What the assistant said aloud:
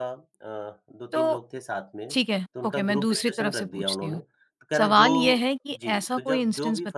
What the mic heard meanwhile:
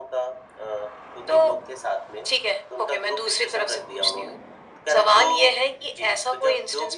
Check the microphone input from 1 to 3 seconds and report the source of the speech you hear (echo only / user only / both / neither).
echo only